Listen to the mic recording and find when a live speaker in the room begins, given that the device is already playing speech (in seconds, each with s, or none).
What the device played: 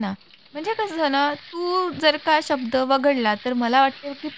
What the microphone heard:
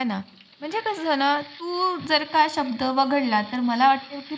none